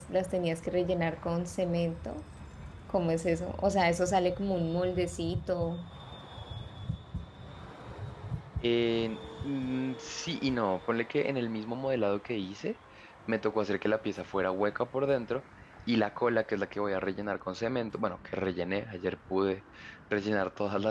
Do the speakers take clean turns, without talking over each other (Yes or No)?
Yes